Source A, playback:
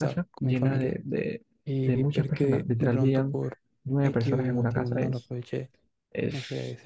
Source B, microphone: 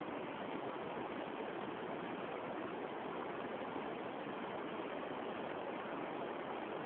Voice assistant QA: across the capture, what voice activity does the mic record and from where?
neither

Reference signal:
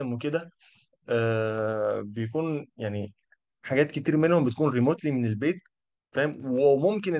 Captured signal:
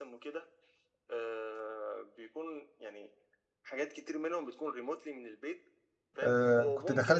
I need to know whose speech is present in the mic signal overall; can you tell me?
both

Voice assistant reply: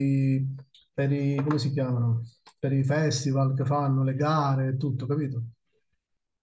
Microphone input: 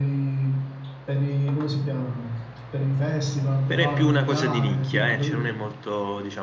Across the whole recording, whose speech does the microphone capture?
both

